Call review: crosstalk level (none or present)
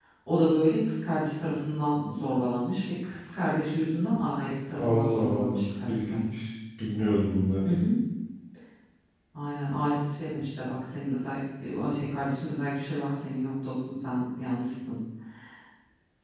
present